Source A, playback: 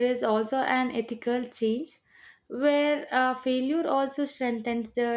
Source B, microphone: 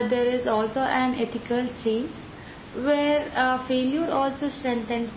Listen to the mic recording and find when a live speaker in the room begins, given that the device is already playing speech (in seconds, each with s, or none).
none